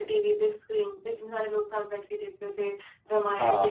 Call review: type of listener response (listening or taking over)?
listening